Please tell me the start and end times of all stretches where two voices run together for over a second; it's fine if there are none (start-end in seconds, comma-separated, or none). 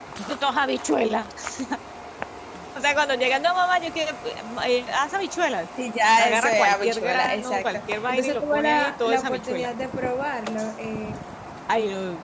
6.2-9.7